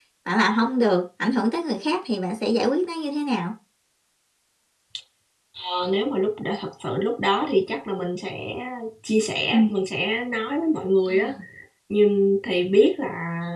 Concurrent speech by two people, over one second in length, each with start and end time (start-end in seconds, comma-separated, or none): none